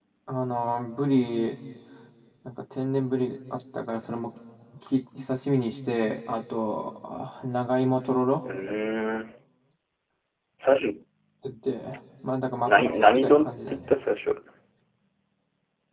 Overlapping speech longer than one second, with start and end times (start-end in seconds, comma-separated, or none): 12.7-13.9